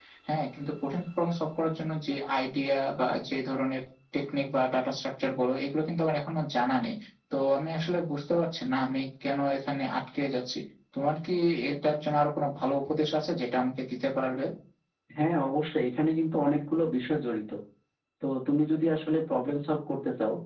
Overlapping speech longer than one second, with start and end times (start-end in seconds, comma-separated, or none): none